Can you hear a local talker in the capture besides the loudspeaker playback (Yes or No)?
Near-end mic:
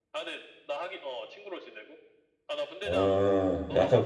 Yes